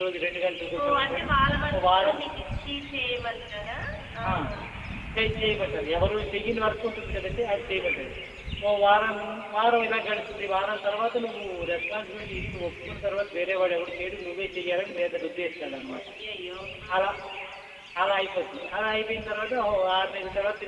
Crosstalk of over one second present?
No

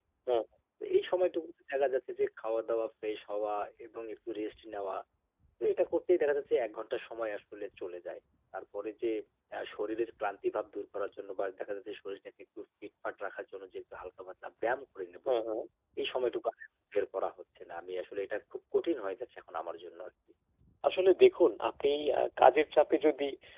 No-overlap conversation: Yes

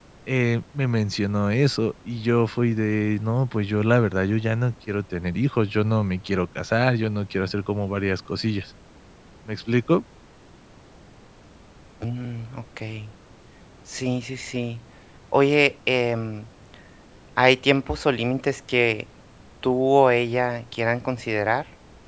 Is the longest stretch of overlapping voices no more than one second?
Yes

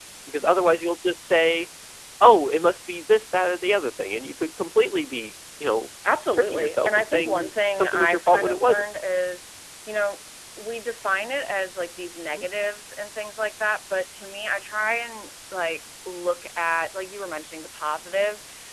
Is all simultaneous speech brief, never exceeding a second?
No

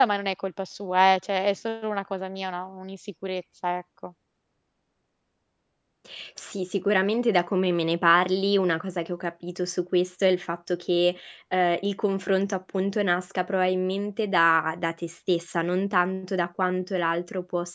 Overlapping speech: No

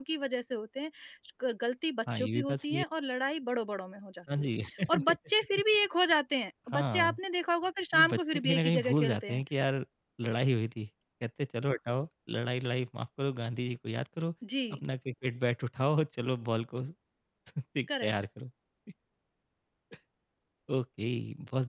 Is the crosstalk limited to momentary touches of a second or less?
No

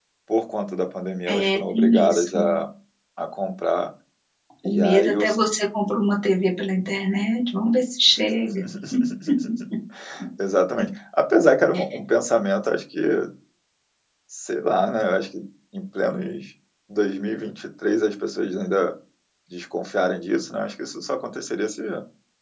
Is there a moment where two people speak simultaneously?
Yes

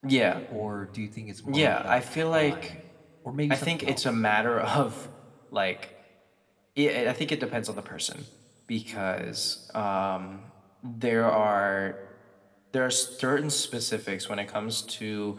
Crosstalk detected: Yes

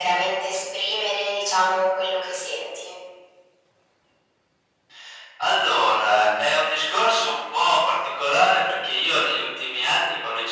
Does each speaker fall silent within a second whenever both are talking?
Yes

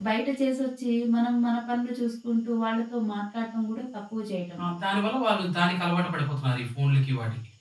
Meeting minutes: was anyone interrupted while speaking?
No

